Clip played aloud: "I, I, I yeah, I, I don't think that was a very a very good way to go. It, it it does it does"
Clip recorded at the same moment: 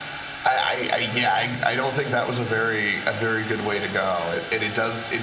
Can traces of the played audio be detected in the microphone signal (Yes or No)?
Yes